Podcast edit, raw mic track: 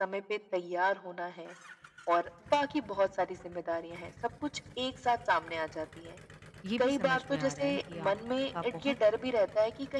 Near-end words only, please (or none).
ये भी समझ में आ रहा है कि आपका बहुत